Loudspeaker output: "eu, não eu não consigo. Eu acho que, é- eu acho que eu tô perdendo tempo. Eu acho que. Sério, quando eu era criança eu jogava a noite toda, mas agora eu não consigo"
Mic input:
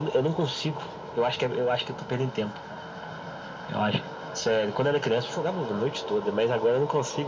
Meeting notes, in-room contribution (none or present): none